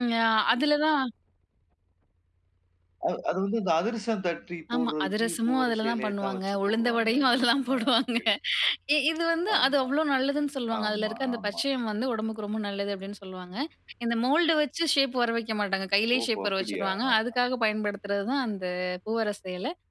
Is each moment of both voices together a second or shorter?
No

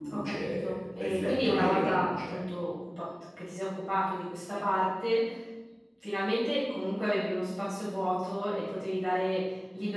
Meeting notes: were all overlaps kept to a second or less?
No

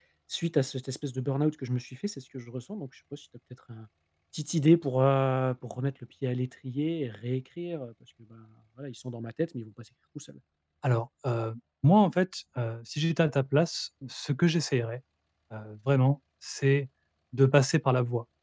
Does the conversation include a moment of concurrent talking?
No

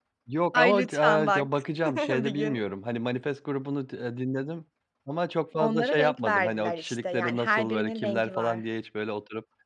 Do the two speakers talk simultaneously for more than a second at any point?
Yes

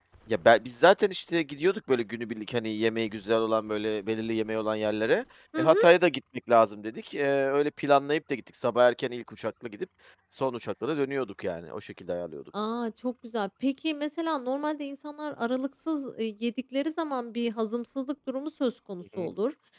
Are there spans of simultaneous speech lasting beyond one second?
No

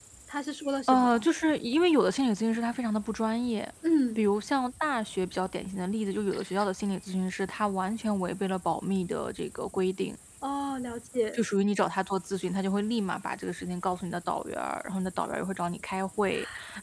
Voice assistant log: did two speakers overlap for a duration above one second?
No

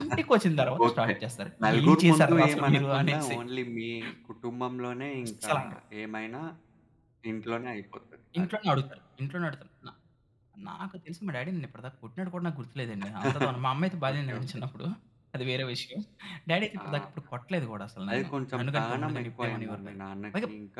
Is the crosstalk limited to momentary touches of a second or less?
No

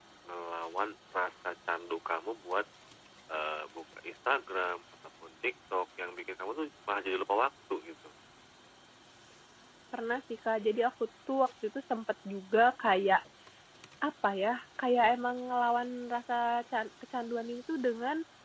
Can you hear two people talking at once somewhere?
No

